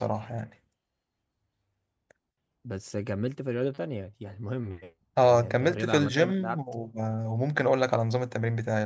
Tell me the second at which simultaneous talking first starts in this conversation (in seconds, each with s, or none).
5.2 s